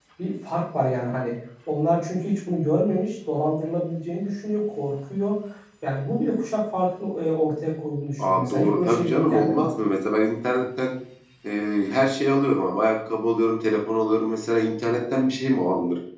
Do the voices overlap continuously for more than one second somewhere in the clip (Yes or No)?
Yes